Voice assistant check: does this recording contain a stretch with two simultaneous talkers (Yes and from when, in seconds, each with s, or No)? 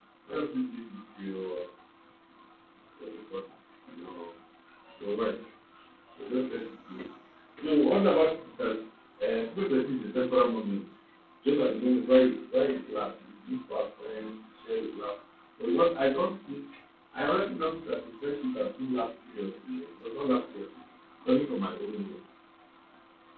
No